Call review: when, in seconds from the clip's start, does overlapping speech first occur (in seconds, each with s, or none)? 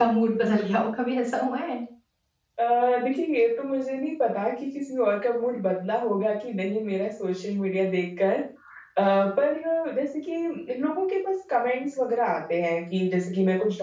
none